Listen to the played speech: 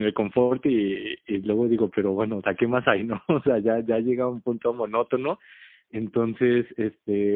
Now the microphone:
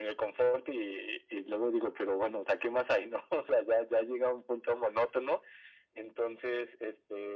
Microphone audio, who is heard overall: echo only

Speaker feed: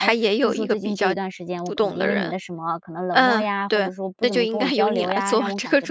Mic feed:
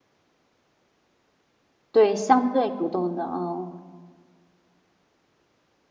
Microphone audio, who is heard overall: user only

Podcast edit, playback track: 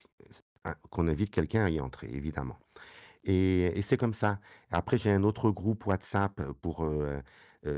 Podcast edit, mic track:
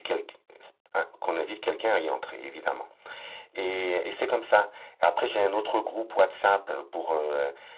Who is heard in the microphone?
echo only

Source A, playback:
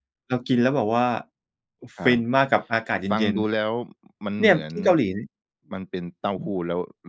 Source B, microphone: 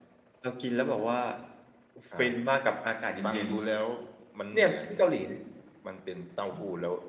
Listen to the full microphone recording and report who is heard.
echo only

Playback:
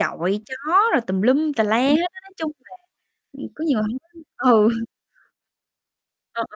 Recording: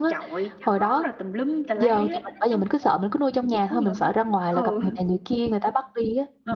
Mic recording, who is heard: both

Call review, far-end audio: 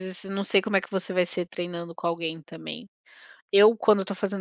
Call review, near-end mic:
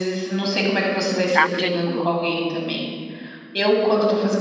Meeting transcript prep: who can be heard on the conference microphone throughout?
both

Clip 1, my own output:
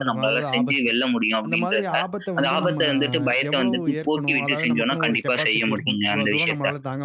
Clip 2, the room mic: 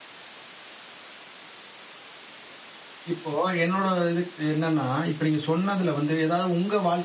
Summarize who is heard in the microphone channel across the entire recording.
user only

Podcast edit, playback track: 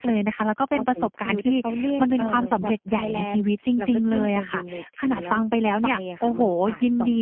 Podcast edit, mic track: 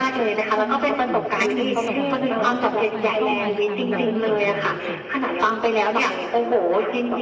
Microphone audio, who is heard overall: both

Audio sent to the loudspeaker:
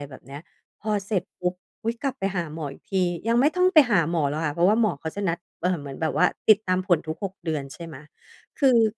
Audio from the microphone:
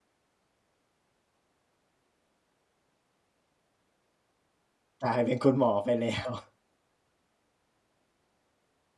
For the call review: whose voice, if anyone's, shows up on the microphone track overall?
user only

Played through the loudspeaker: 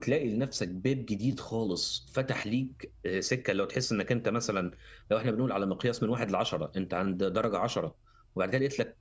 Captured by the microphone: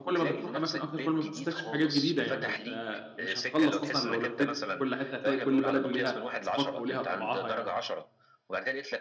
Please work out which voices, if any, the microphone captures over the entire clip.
both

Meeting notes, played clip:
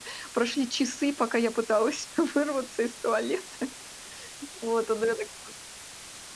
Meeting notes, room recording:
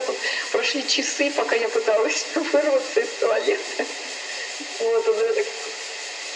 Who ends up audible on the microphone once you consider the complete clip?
echo only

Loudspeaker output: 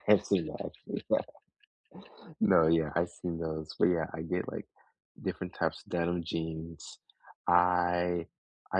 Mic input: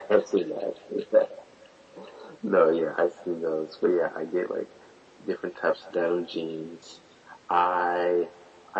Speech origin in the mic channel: echo only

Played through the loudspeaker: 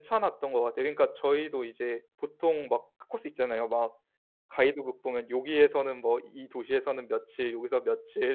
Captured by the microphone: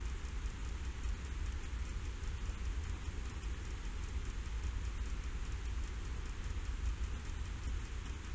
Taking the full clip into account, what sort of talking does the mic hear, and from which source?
neither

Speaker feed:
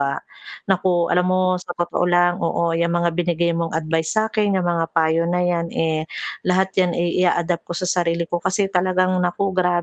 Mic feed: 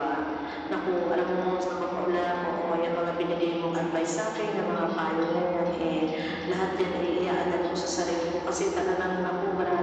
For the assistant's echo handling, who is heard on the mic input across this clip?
echo only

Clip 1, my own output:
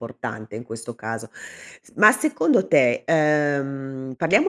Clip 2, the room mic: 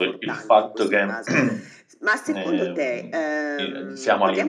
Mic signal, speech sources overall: both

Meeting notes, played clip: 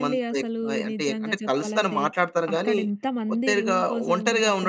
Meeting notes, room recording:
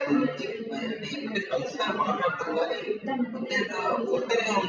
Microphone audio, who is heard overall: echo only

